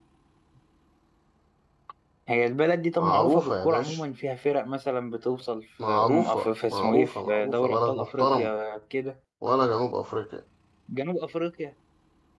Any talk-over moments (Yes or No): Yes